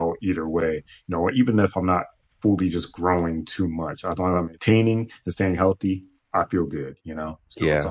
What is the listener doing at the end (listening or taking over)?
taking over